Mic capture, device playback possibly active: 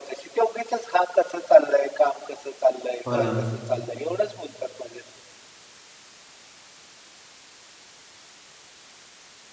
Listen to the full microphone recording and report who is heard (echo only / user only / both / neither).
both